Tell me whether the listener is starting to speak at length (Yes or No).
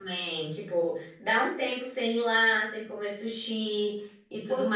Yes